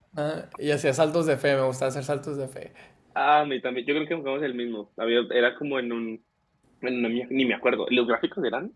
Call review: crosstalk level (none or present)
none